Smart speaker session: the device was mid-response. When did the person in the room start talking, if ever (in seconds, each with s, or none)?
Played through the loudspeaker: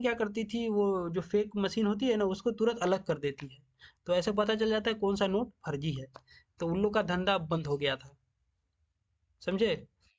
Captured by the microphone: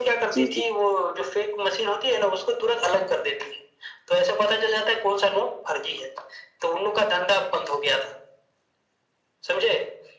0.3 s